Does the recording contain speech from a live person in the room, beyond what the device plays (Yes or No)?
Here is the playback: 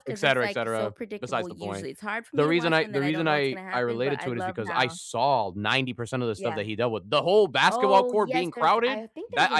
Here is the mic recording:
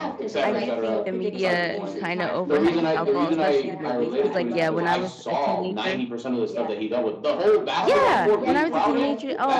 Yes